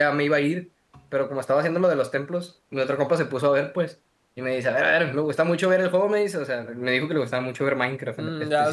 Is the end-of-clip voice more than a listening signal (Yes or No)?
Yes